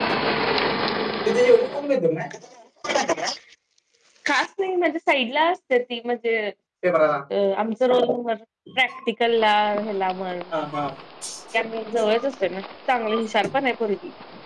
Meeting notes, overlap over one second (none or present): none